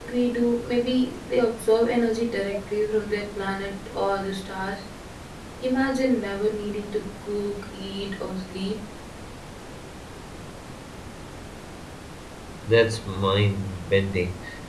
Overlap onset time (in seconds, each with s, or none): none